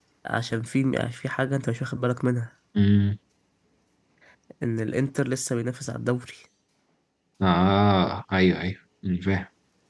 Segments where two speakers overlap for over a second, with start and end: none

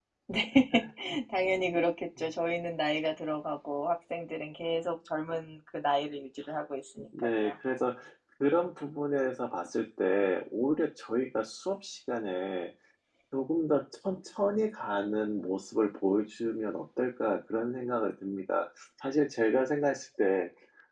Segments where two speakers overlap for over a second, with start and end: none

